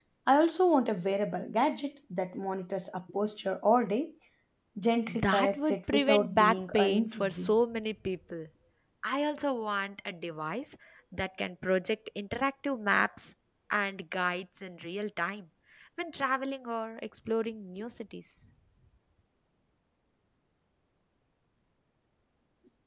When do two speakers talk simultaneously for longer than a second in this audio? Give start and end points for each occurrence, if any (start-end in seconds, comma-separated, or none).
5.1-7.5